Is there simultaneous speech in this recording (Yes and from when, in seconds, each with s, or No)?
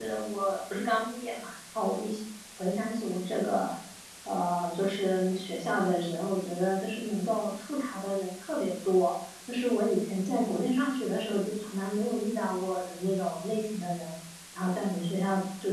No